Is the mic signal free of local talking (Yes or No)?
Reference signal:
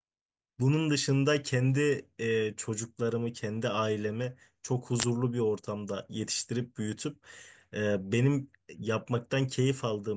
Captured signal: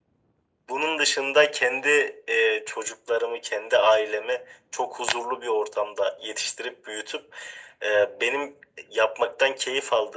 Yes